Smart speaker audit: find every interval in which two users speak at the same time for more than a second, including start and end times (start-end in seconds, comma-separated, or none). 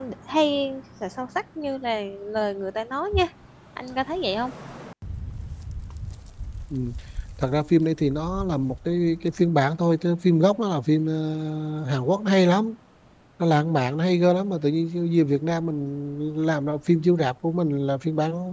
none